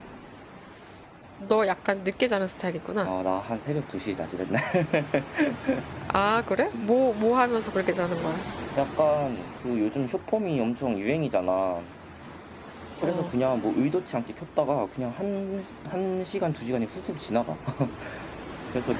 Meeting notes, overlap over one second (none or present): none